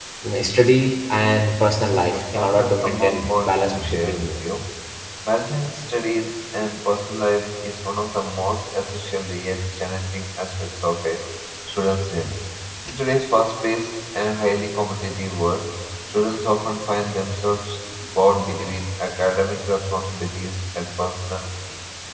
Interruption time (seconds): 2 s

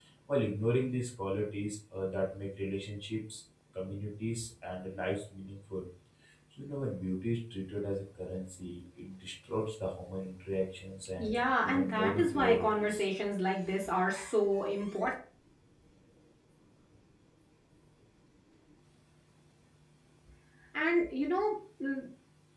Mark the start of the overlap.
11 s

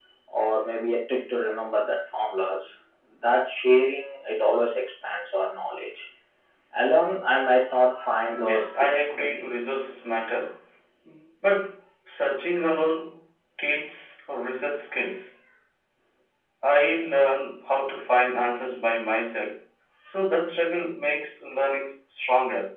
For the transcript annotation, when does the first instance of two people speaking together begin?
8 s

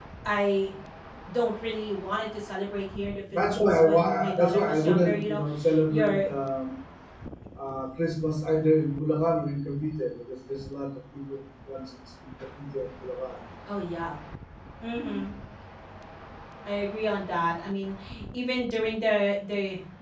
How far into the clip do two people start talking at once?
3 s

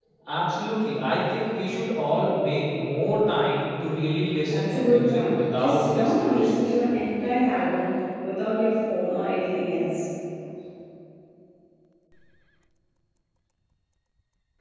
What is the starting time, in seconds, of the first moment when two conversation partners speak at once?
4 s

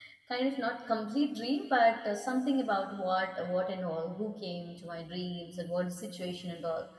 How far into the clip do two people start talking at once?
none

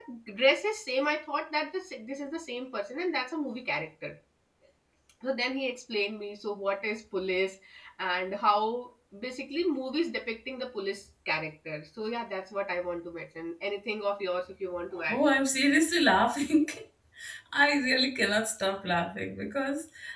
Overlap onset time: none

